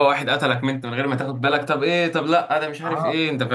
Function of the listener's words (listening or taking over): taking over